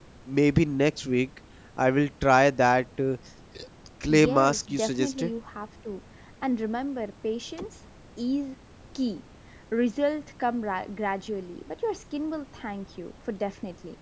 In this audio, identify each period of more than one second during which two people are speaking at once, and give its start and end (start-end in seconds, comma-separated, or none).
4.1-5.3